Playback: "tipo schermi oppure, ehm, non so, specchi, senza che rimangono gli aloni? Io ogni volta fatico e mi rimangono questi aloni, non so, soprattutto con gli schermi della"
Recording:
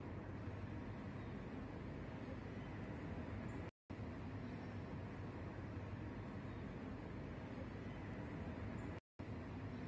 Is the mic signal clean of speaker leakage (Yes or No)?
Yes